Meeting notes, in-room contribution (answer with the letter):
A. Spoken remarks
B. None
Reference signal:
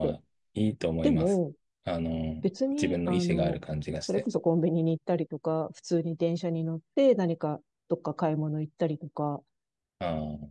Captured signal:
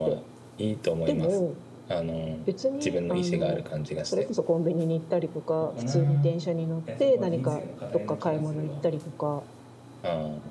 A